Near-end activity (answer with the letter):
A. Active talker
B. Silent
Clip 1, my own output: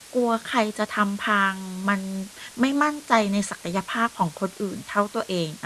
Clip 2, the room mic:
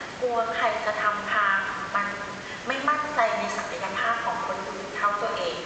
B